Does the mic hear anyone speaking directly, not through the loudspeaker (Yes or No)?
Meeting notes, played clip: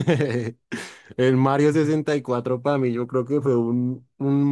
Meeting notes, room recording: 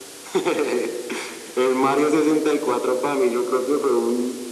No